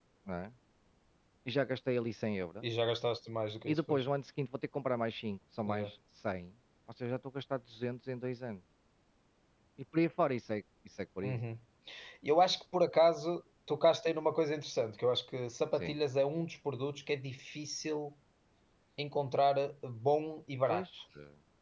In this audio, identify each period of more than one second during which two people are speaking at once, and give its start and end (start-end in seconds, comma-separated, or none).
none